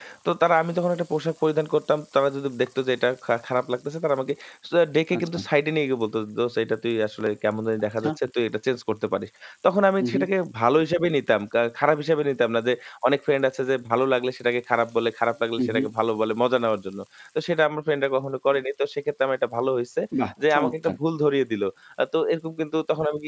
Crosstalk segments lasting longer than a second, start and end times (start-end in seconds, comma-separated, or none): none